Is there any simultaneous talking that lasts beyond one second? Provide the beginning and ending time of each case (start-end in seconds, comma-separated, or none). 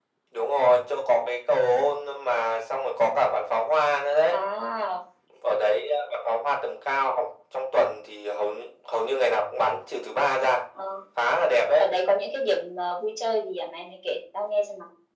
none